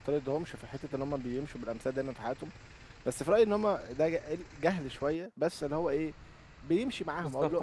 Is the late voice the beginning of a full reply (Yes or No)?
Yes